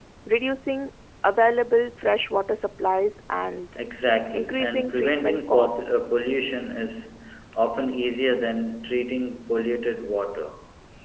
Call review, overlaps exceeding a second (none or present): present